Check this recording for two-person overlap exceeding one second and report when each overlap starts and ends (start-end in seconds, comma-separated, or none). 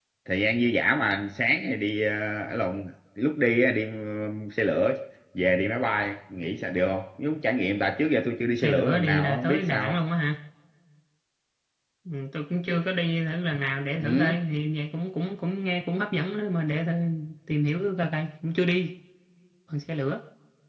8.6-9.9